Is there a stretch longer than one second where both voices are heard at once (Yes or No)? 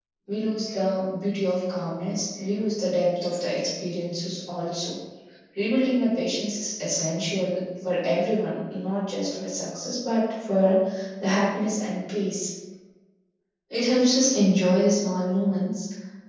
No